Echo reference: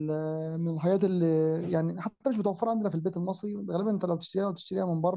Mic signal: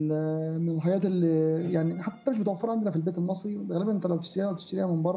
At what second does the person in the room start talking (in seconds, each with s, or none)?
none